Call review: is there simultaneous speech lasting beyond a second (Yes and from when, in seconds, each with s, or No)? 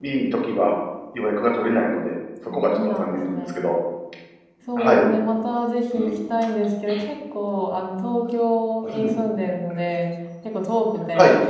Yes, from 2.5 s